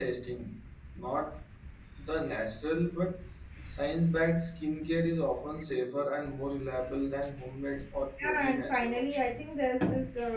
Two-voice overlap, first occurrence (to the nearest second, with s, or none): 8 s